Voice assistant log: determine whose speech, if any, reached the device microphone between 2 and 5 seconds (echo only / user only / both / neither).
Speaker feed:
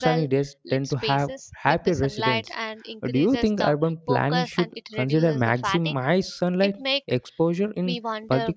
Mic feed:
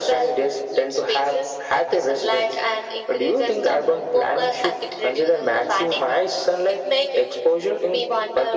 echo only